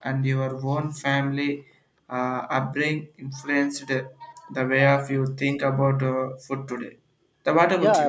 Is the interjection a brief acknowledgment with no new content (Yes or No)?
No